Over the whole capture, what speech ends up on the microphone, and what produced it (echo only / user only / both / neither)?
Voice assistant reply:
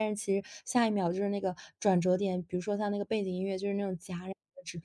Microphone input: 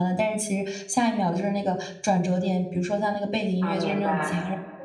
both